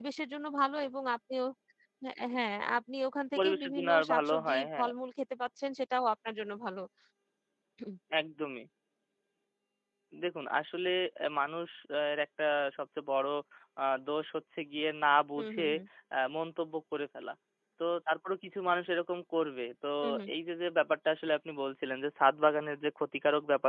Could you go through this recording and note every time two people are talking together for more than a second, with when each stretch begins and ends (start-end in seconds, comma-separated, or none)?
3.4-4.9